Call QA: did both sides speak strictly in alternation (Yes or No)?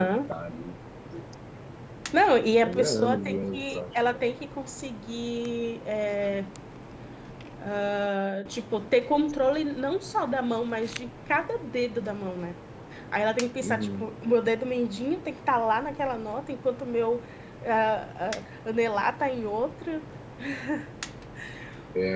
No